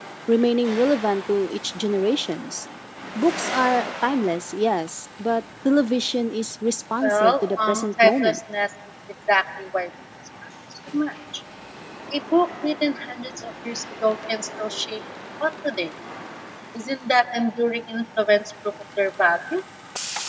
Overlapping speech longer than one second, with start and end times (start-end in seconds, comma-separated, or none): 7.0-8.4